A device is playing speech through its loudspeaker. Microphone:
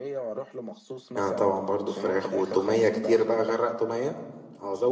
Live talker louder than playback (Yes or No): Yes